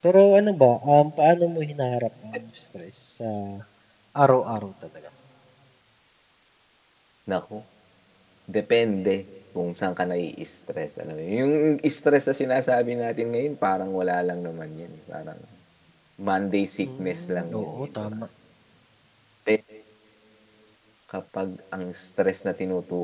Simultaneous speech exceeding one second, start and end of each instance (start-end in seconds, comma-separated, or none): 16.8-18.1